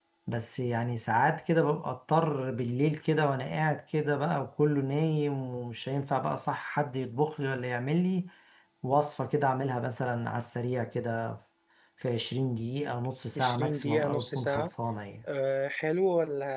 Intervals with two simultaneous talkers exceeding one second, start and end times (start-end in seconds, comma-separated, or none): 13.4-14.7